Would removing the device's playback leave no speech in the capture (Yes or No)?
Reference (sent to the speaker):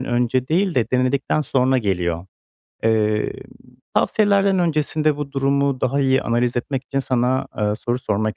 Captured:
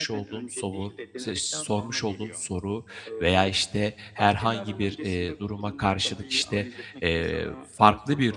No